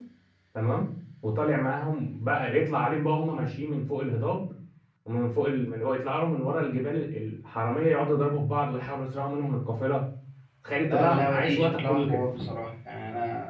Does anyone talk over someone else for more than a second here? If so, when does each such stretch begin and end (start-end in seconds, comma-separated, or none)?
10.9-12.2